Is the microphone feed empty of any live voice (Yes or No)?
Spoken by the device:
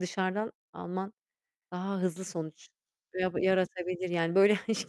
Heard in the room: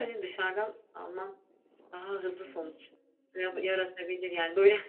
No